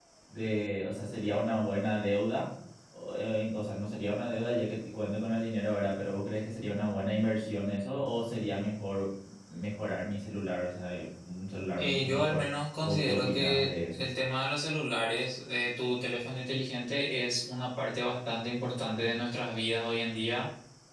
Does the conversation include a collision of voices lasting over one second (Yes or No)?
Yes